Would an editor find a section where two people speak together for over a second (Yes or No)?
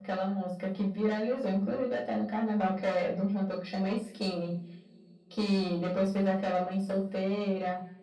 No